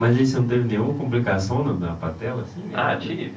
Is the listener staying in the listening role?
No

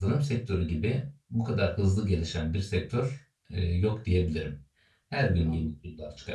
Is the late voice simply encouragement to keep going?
Yes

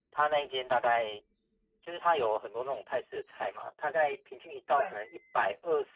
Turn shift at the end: No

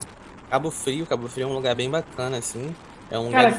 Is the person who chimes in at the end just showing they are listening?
No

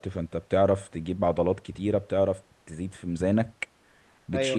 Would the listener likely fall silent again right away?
Yes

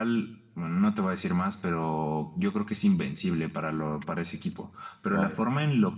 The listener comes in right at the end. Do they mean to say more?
No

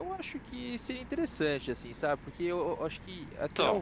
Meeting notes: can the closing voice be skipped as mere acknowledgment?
Yes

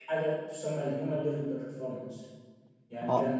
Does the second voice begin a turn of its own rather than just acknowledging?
No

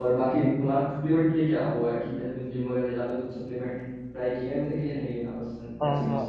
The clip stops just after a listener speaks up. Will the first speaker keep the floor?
No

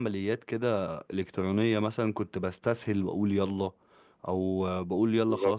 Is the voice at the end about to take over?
No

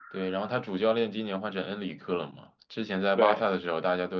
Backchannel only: Yes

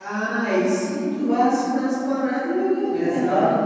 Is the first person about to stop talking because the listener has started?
Yes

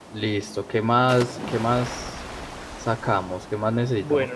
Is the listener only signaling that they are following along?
No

